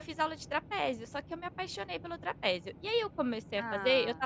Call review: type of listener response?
listening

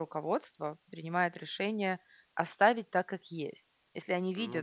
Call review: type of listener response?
listening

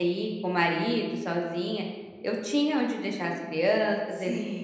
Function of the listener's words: listening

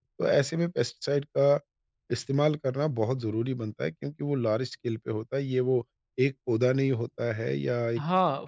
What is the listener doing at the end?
taking over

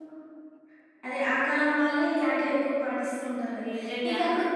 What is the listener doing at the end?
listening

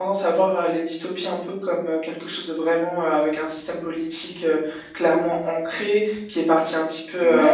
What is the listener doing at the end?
taking over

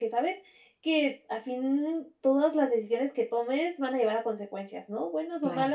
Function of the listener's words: listening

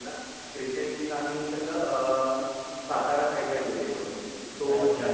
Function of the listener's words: listening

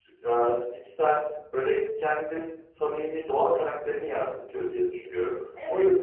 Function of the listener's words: taking over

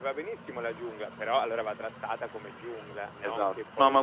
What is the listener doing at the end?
taking over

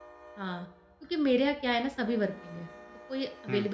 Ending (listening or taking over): listening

